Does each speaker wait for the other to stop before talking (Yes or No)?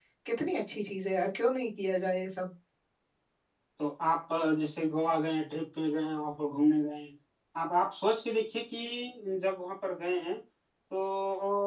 Yes